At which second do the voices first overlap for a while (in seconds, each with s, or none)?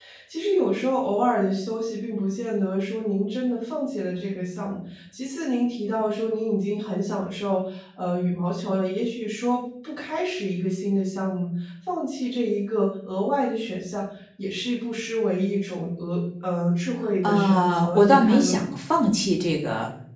17.2 s